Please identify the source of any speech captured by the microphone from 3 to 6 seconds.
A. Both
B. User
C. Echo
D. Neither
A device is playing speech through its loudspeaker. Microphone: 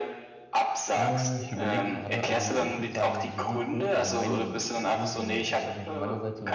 A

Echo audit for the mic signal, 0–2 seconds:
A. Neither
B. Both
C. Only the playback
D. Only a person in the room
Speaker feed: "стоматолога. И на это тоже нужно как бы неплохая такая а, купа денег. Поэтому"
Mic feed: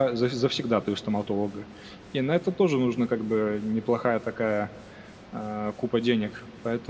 C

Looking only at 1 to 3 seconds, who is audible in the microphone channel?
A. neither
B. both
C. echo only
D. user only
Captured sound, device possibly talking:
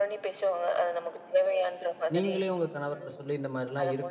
B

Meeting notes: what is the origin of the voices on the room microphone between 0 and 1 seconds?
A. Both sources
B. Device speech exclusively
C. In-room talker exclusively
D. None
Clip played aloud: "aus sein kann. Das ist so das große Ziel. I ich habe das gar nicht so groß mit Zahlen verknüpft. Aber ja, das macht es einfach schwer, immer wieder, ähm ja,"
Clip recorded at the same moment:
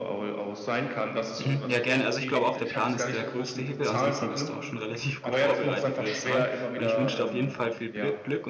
B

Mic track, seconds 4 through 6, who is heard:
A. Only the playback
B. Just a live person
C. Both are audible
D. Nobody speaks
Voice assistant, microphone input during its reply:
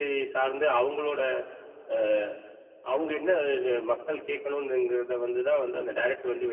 A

